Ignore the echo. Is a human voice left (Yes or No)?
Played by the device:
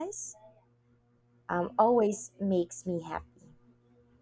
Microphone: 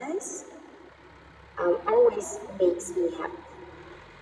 No